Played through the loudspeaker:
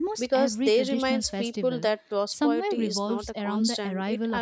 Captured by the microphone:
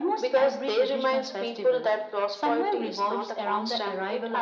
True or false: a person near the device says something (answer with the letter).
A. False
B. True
A